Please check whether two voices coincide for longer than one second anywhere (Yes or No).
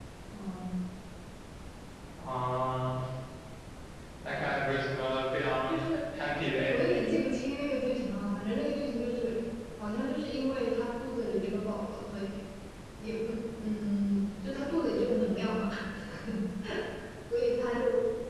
No